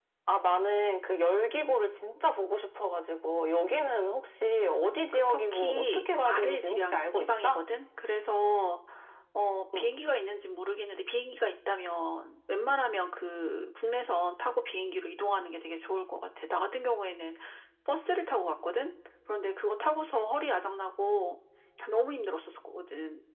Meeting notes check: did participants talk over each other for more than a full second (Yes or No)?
Yes